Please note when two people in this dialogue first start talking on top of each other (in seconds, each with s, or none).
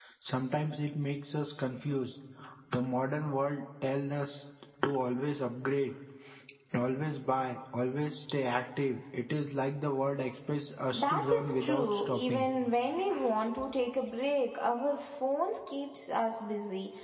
10.9 s